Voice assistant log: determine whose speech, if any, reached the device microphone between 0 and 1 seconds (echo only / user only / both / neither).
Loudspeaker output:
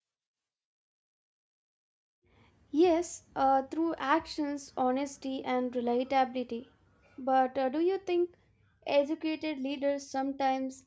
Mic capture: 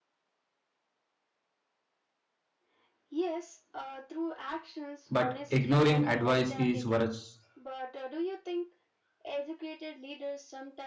neither